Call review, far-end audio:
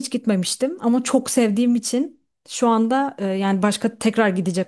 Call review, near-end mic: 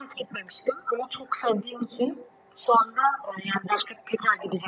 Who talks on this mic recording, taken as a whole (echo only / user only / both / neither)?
echo only